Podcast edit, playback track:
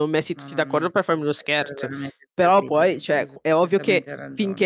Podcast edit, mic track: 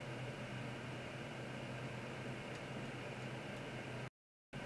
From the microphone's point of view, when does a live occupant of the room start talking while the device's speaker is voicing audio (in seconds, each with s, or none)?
none